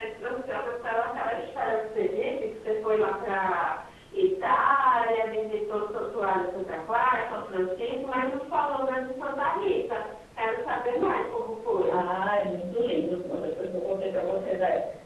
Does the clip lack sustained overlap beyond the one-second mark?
Yes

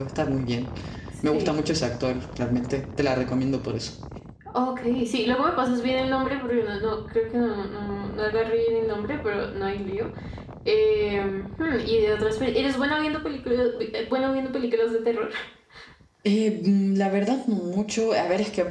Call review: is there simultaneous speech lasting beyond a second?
No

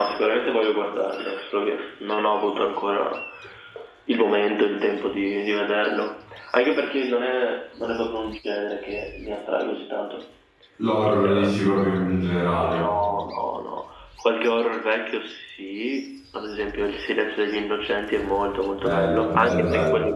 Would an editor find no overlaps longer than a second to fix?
No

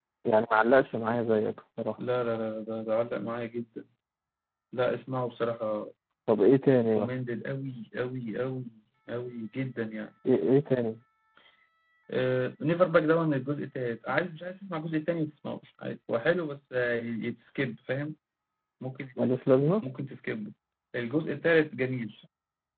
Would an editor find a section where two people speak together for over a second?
No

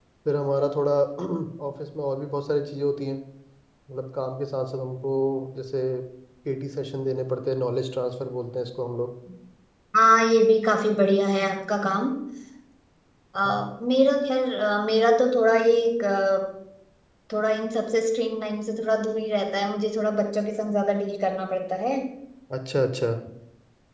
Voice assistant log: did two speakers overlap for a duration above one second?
No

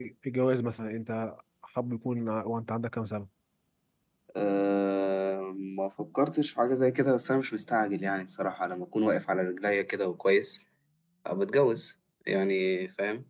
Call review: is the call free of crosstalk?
Yes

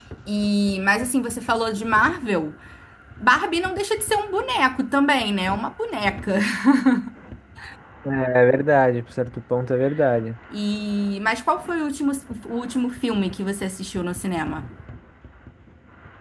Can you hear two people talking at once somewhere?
No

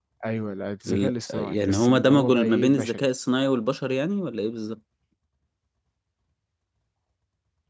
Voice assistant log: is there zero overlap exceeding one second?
No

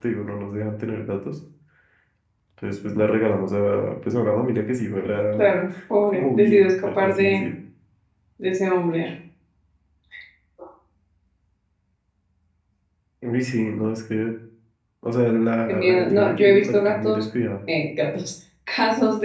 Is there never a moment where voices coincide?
No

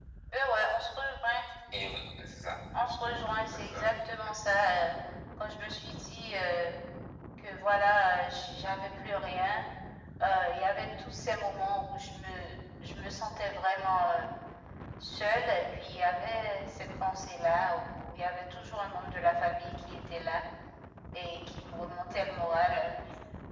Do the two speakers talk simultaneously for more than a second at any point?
No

